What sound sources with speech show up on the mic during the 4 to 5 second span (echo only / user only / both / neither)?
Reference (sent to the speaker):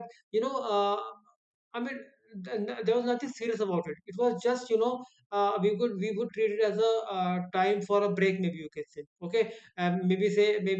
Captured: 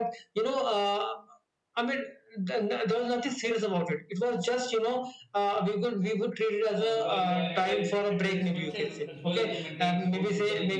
echo only